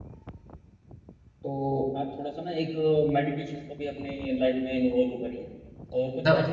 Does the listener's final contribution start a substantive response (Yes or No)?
No